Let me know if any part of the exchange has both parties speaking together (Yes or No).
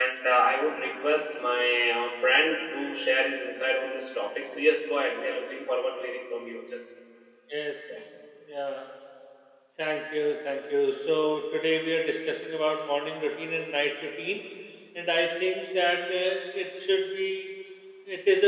No